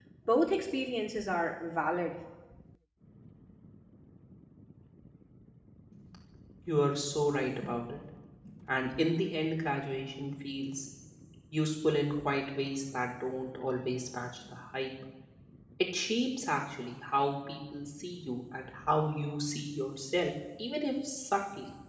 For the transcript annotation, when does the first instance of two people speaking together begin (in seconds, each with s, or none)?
none